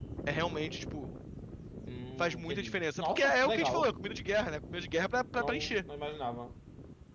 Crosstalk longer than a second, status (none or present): present